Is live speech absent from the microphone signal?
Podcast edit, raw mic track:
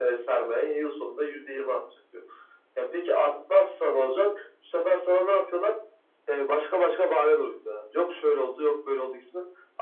Yes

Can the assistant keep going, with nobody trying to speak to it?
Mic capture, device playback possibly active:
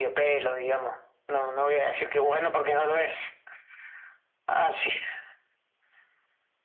Yes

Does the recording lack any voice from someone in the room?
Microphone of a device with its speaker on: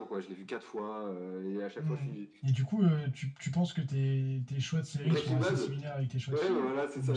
No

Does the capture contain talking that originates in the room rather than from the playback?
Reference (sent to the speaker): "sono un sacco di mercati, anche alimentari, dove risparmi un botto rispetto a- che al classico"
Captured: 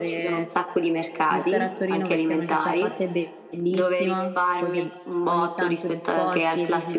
Yes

